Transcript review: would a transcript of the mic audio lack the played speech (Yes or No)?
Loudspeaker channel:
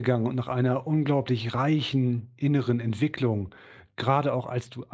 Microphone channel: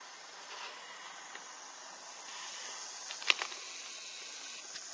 Yes